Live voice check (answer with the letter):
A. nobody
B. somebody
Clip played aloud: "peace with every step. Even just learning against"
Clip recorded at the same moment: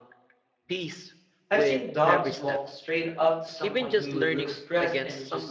B